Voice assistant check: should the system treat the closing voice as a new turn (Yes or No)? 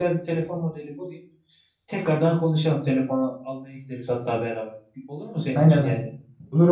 Yes